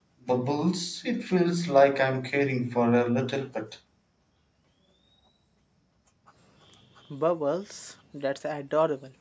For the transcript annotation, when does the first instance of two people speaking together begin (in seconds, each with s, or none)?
none